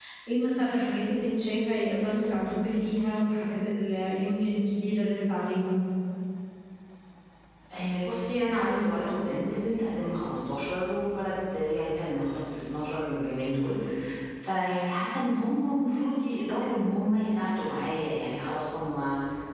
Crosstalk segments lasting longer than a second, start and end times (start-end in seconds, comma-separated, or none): none